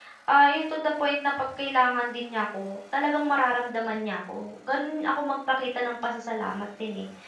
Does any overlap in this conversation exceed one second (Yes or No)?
No